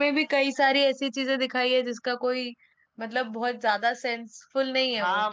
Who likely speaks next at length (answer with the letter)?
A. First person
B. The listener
B